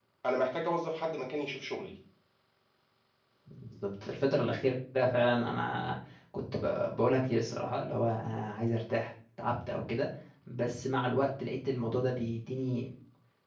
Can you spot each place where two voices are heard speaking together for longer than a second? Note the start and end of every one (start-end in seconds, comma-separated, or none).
none